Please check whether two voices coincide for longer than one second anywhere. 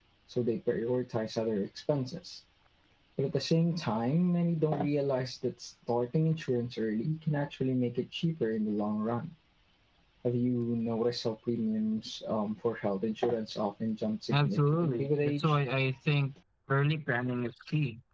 Yes, from 14.3 s

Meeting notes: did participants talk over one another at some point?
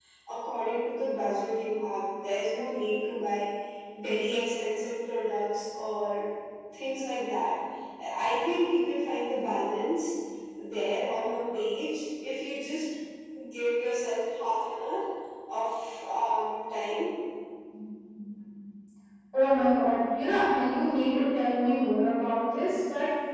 No

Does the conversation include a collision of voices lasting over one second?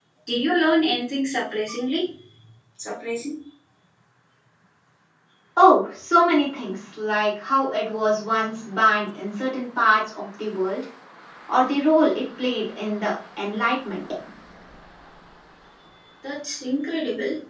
No

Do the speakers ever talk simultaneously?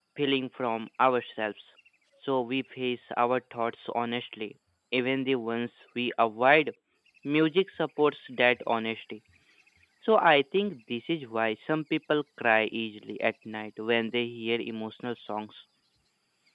No

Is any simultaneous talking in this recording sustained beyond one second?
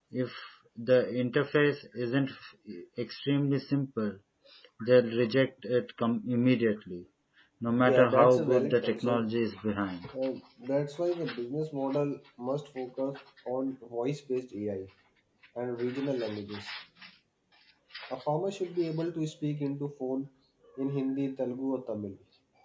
Yes, from 7.8 s

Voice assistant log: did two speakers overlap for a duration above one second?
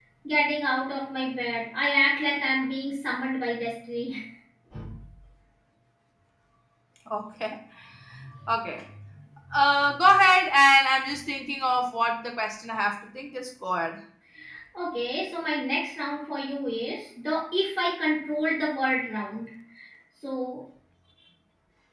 No

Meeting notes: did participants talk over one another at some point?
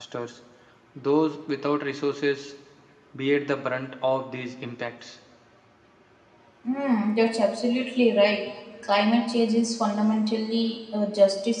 No

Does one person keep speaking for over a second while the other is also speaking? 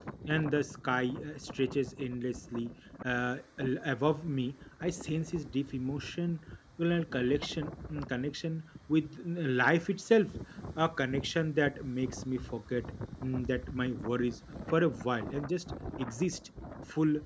No

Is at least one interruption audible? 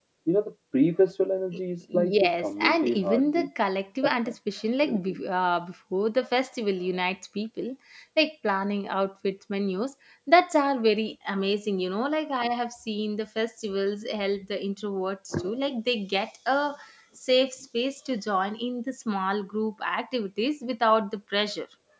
Yes, from 1.9 s

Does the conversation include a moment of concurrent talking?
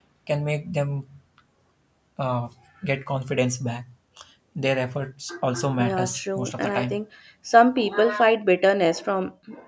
Yes, from 5.8 s

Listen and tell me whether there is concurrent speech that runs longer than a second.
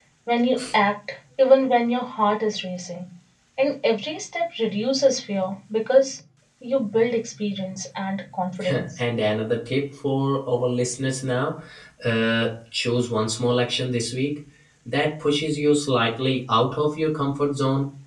No

